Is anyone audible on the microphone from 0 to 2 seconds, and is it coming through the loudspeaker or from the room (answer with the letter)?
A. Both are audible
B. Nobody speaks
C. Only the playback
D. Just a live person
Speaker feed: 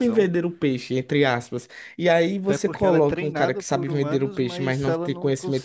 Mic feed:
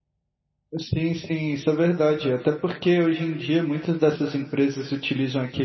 D